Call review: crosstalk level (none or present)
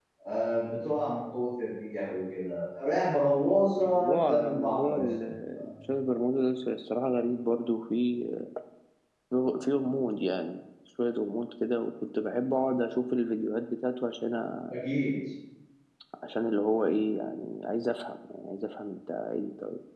present